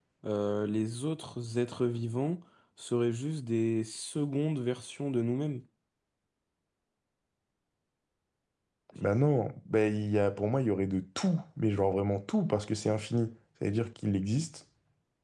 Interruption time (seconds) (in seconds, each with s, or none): none